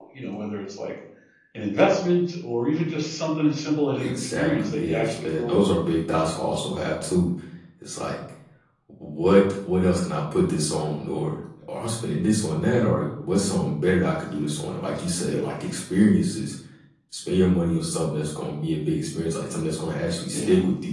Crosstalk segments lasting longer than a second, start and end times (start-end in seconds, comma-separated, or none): 4.0-5.7